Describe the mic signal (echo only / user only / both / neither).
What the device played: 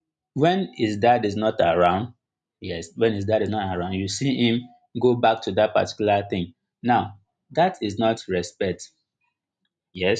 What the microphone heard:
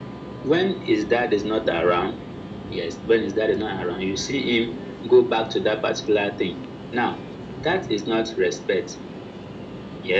echo only